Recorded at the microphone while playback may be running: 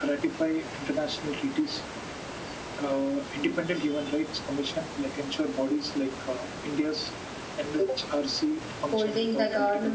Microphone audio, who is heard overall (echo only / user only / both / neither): both